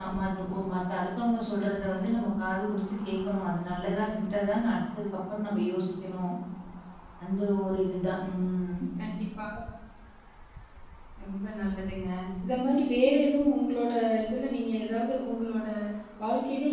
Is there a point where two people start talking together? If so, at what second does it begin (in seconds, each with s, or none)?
none